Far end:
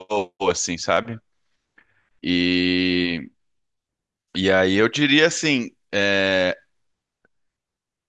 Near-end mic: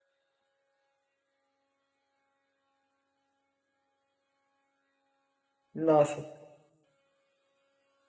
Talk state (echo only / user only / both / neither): user only